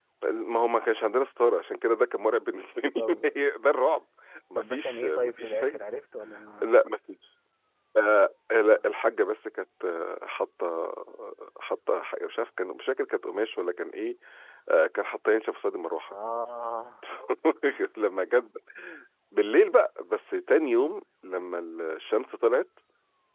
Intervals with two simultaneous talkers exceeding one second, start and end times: 4.6-5.8

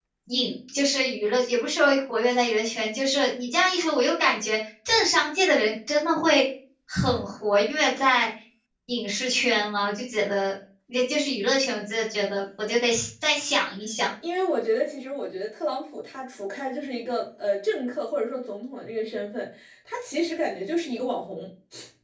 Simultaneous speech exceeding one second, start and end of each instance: none

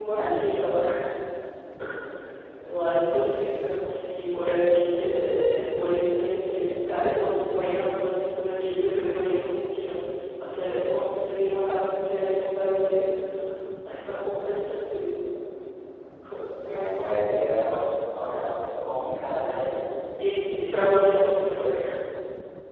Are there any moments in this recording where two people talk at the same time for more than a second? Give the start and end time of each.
none

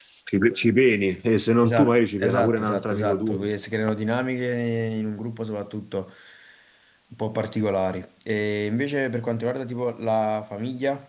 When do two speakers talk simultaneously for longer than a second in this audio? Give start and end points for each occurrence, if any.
1.6-3.5

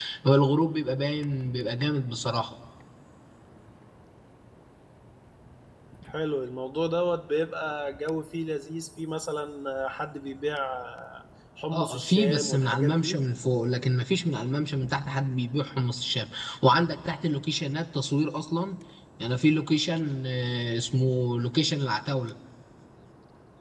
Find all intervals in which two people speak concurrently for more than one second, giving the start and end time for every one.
11.7-13.2

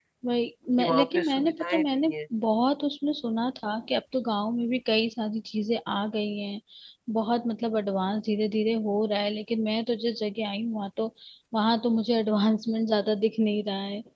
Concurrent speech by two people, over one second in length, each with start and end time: 0.8-2.1

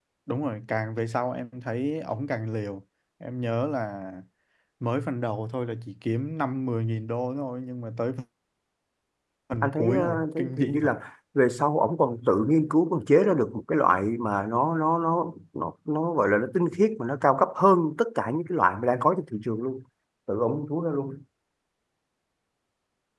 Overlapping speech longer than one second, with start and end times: 9.6-10.9

